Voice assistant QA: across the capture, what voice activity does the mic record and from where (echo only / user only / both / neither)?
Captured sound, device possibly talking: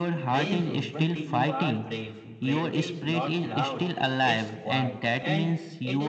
both